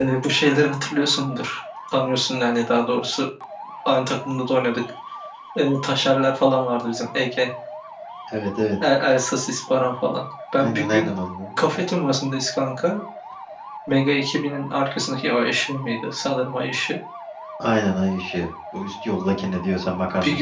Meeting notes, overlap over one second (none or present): none